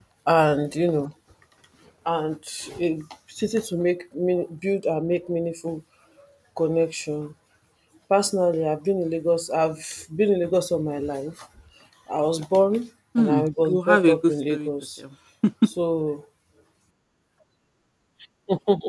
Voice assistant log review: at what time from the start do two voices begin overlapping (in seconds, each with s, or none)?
13.2 s